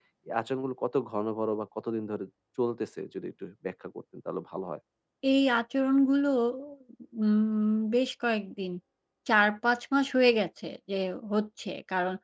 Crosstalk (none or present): none